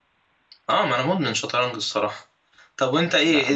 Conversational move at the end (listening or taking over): listening